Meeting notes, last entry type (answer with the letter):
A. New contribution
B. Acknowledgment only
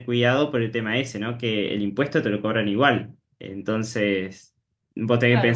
A